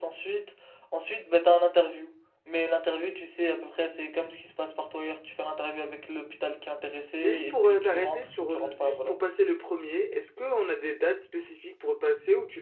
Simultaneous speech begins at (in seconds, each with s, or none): 7.2 s